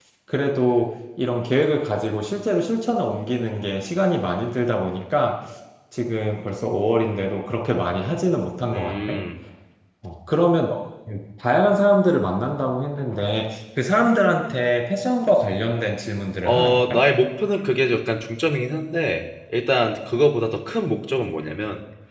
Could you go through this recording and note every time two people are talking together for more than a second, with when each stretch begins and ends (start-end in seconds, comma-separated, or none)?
none